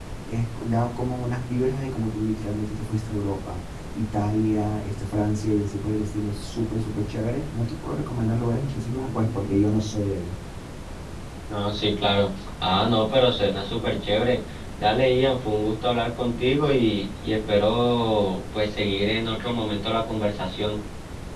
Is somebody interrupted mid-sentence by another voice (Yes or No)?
No